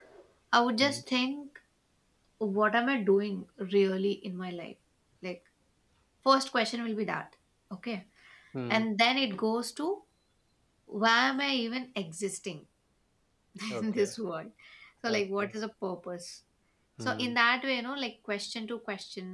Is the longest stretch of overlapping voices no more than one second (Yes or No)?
Yes